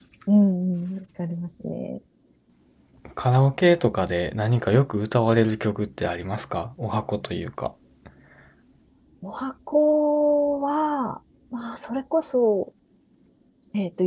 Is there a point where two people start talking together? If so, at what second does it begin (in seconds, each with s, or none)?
none